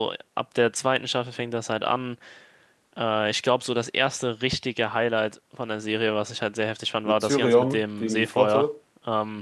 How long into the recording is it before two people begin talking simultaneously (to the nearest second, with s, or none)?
7 s